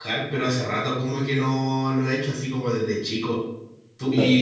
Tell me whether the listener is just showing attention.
Yes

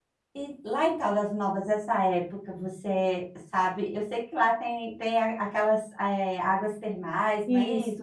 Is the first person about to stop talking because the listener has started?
Yes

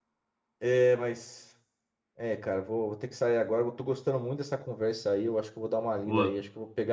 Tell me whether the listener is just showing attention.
Yes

